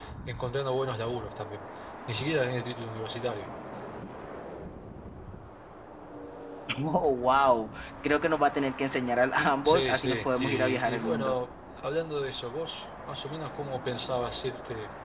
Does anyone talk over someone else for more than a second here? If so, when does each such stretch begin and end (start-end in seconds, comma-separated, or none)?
9.6-11.4